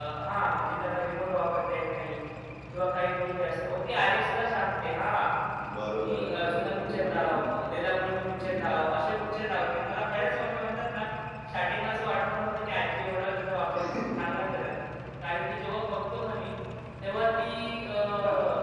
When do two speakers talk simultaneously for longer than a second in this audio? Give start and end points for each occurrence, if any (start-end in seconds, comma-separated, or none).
6.0-7.3